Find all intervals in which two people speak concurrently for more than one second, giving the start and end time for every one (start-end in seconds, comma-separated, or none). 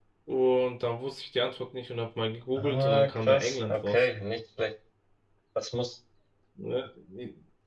2.6-4.1